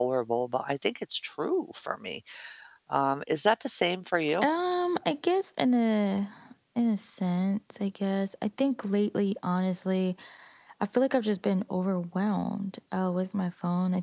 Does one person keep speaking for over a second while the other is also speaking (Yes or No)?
No